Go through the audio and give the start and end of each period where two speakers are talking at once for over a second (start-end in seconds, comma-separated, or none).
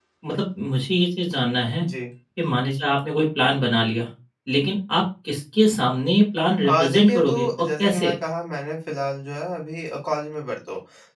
6.7-8.1